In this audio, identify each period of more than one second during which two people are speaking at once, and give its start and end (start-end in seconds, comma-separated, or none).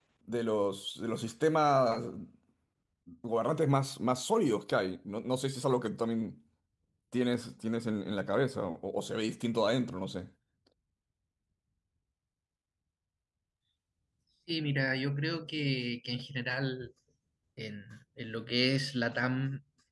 none